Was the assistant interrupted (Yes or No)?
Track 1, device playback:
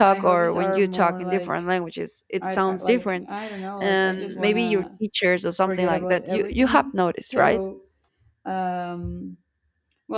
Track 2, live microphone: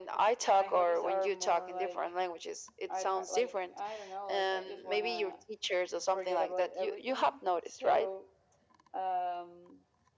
No